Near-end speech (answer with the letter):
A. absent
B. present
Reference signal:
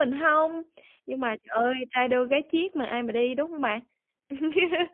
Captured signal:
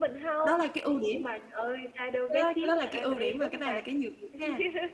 B